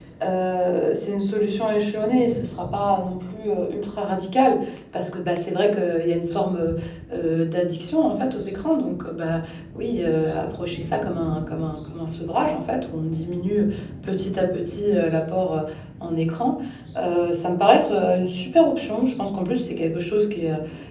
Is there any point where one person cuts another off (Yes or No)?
No